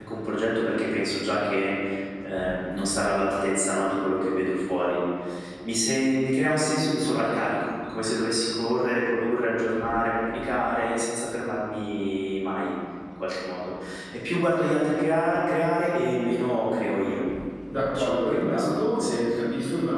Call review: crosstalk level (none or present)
present